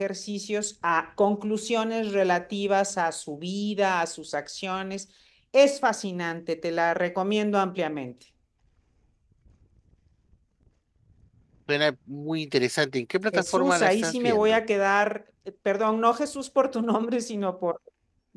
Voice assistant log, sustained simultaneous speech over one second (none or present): present